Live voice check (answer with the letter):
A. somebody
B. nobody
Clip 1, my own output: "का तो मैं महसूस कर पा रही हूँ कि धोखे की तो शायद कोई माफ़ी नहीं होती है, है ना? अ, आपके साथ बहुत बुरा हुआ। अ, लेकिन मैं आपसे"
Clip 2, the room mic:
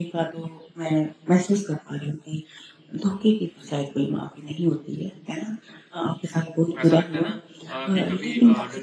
A